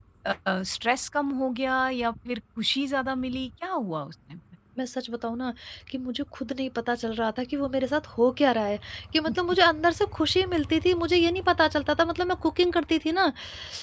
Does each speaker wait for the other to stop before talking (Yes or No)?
Yes